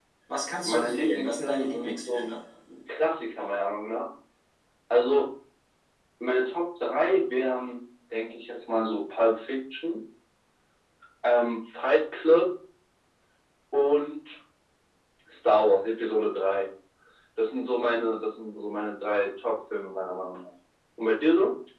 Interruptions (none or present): present